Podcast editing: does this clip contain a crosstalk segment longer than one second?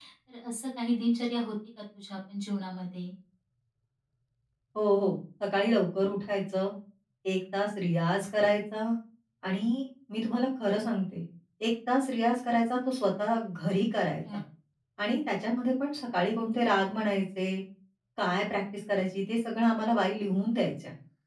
No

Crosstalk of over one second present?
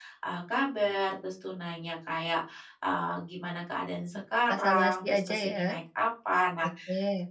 Yes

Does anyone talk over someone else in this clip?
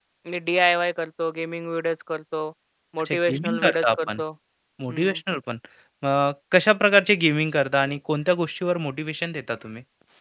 Yes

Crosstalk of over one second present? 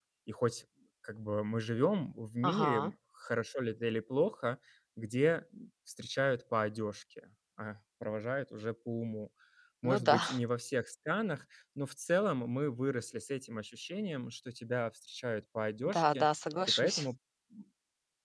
No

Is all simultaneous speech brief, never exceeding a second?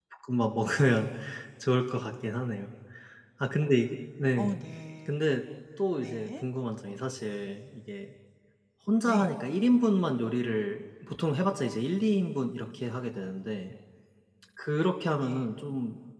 Yes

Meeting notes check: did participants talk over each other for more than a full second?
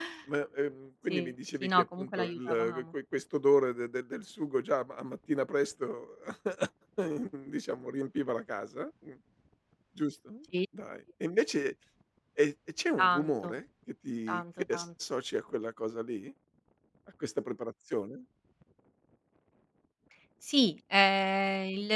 Yes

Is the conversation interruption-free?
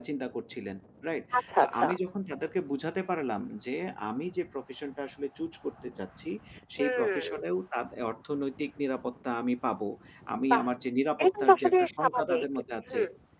No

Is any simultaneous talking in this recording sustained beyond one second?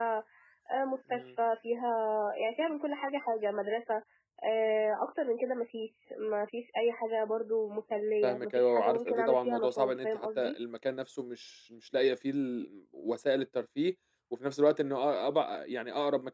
Yes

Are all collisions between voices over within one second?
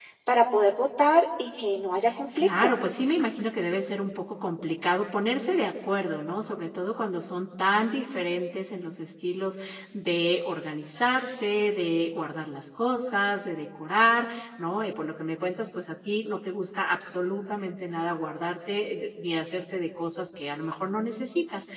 Yes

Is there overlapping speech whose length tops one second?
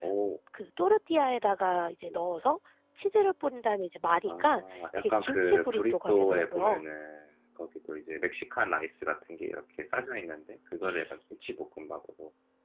Yes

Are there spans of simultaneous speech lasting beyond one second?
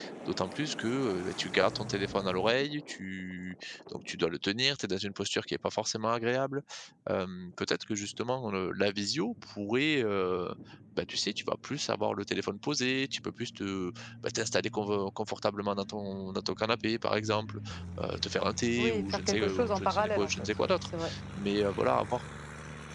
Yes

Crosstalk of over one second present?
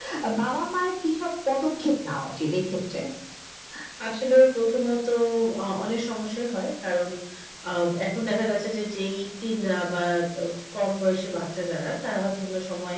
No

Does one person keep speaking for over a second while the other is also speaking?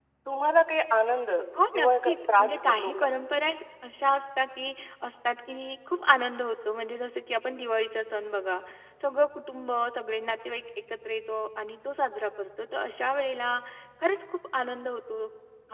Yes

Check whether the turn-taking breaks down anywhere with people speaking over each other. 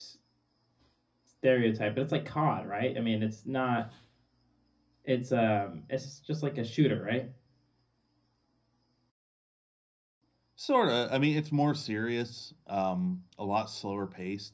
No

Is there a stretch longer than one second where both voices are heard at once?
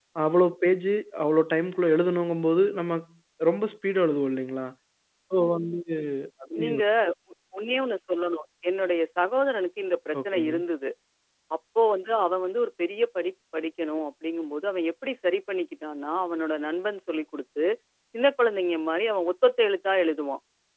No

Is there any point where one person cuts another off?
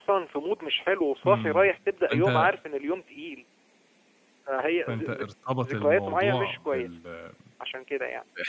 Yes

